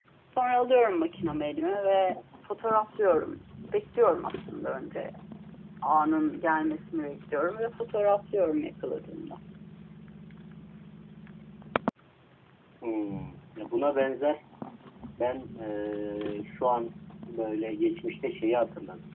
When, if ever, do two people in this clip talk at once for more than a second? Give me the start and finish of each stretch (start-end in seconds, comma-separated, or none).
none